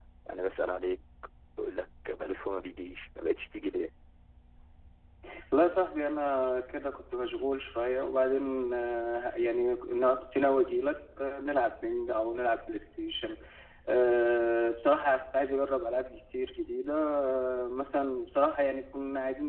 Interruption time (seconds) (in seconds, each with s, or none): none